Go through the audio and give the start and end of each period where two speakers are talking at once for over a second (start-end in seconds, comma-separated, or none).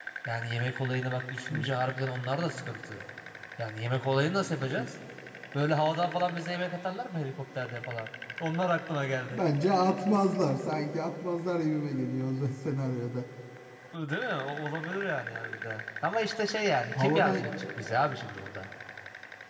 none